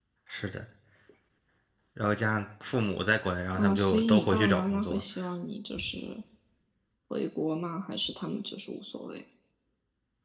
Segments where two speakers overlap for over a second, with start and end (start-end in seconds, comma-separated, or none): 3.5-5.0